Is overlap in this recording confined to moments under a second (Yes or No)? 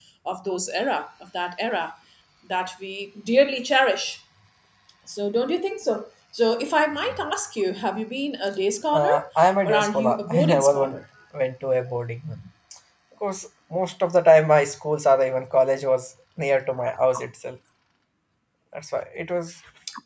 No